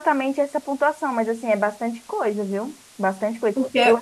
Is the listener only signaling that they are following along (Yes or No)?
Yes